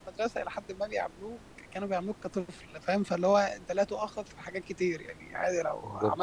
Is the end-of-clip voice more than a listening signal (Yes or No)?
No